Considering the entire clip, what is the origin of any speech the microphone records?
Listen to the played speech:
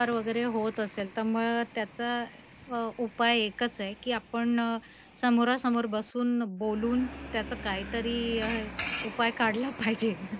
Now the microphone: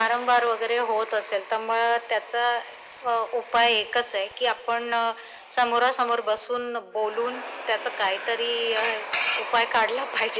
echo only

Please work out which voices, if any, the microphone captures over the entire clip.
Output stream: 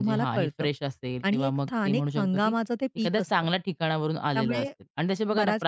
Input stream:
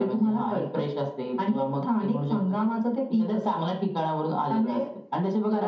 echo only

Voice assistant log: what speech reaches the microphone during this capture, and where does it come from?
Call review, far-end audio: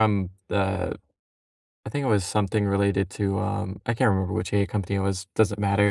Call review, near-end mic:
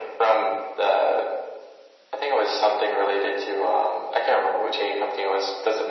echo only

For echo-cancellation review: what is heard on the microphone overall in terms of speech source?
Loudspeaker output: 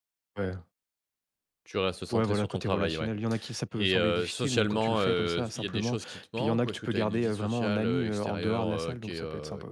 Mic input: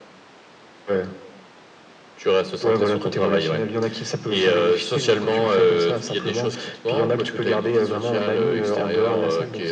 echo only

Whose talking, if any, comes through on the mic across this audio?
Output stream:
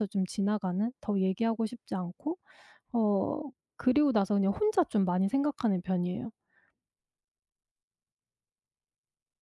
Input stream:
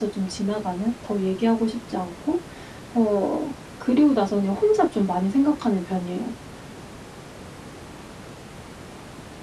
echo only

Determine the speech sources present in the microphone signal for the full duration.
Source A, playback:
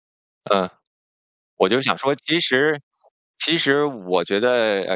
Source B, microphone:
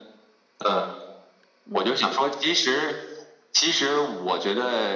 both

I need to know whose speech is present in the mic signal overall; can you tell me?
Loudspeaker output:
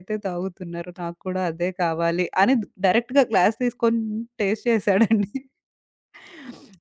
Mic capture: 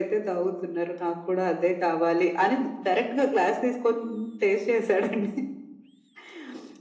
echo only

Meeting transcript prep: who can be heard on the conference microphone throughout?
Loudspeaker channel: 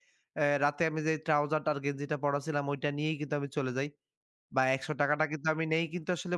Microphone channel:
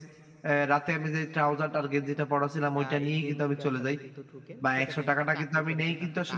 both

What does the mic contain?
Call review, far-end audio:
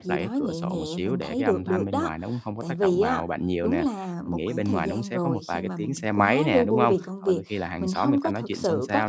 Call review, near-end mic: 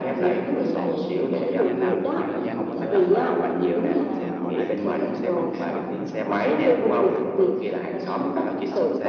both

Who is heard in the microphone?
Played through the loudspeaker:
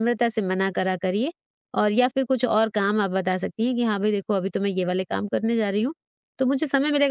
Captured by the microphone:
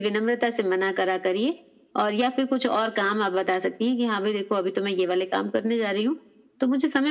echo only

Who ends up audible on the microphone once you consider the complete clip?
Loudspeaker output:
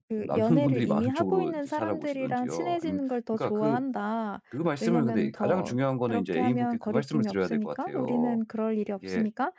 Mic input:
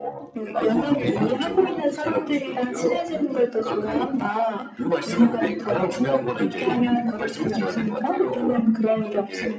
echo only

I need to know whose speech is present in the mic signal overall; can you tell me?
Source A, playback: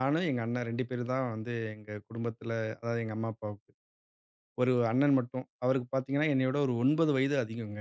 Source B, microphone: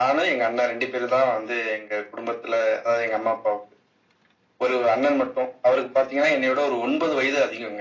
echo only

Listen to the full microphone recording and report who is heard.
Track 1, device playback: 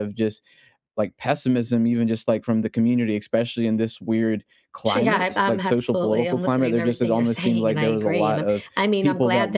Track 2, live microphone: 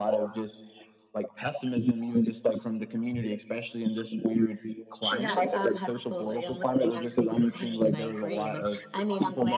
echo only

